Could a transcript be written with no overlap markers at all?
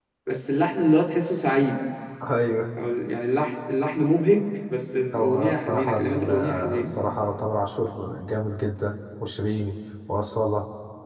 No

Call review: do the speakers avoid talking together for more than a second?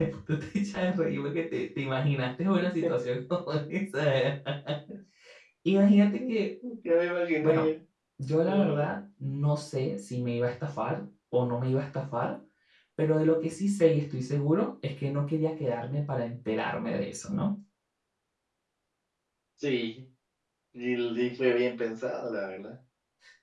Yes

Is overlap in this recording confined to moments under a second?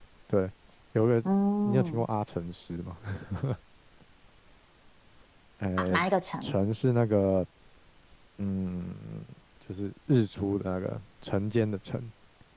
Yes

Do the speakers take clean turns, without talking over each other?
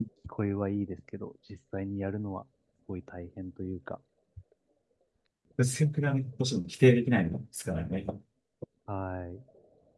Yes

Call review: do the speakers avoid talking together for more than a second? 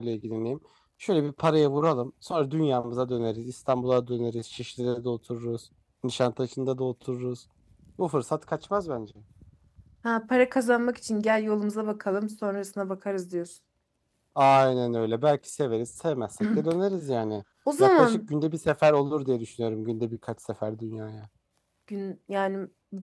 Yes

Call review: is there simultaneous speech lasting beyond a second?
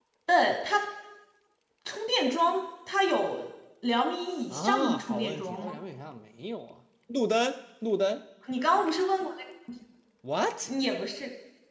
Yes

